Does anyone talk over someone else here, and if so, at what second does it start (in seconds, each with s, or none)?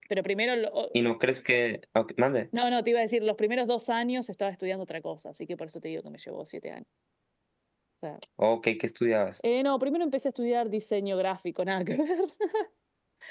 none